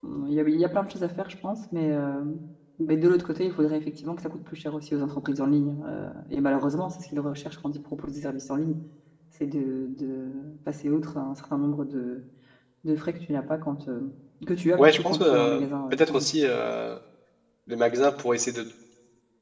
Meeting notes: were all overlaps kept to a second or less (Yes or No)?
No